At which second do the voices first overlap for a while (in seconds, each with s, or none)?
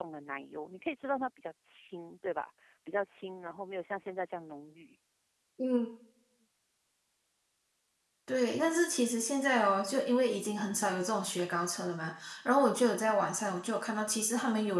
none